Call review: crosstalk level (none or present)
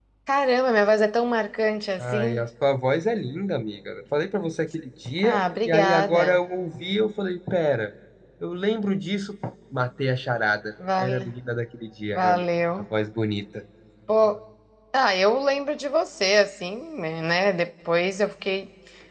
present